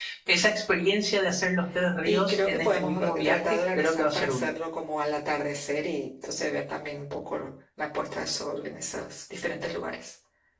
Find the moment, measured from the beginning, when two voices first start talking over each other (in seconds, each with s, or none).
2.1 s